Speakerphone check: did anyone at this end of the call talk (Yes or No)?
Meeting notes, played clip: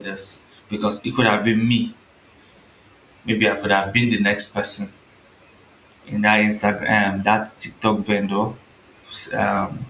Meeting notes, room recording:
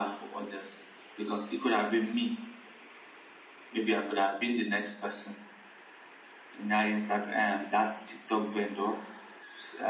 No